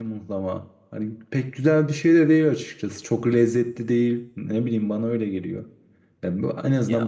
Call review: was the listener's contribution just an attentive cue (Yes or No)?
Yes